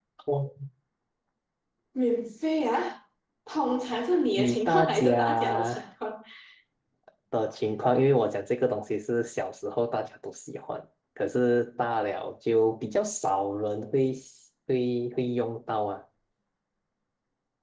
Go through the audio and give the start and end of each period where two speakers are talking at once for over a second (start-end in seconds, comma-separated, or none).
4.4-5.9